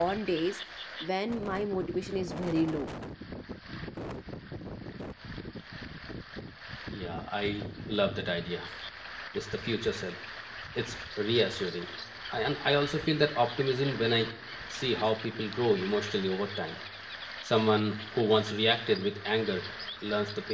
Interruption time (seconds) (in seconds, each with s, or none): none